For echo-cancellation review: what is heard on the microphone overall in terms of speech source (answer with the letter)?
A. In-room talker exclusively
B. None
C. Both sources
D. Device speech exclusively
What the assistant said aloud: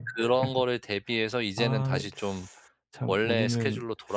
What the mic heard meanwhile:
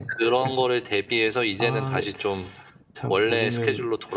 D